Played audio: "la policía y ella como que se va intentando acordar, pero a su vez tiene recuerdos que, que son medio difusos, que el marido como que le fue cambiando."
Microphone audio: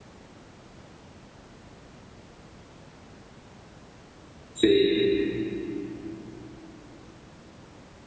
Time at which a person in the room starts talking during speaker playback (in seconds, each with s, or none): 4.5 s